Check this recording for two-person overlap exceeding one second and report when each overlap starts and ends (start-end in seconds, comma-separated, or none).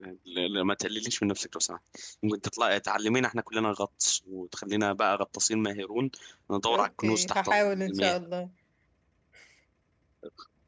6.7-8.2